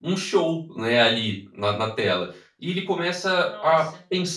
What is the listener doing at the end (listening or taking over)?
listening